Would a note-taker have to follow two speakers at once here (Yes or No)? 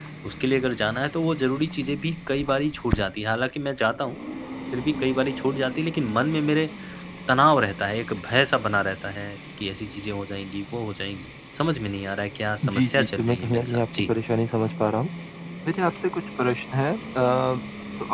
Yes